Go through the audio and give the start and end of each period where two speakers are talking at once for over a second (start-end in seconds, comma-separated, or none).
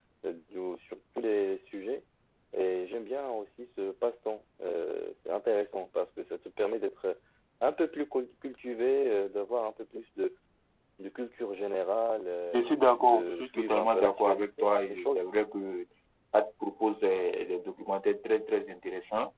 12.5-15.2